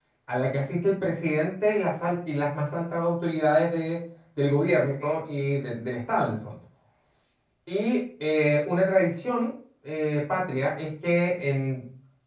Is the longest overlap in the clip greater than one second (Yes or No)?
No